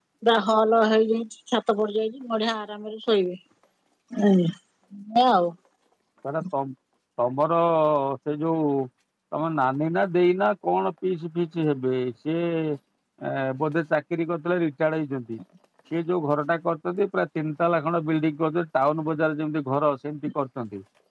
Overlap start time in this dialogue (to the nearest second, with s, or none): none